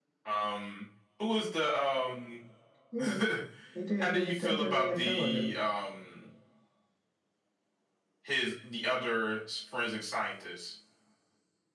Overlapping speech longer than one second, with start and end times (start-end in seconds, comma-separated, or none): 4.0-5.5